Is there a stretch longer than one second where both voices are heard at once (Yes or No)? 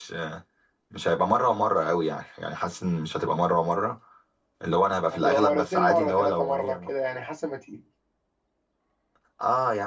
Yes